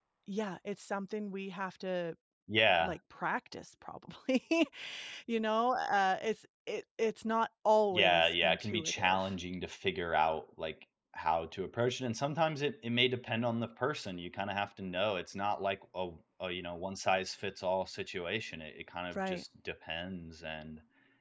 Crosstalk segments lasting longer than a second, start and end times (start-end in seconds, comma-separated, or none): 7.9-9.3